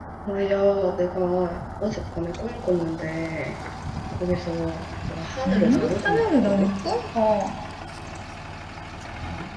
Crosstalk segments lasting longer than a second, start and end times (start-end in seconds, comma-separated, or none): 5.4-6.7